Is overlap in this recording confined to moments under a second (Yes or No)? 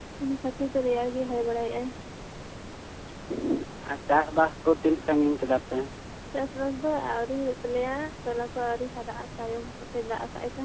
Yes